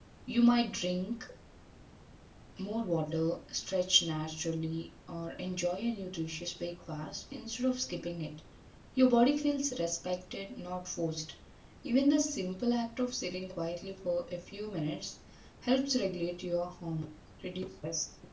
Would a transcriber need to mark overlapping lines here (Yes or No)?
No